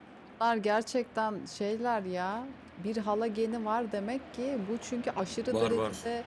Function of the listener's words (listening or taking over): listening